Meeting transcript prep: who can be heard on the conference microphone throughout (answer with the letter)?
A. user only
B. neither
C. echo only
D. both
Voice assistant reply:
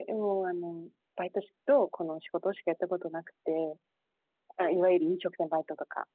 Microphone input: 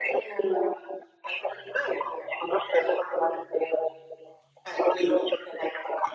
C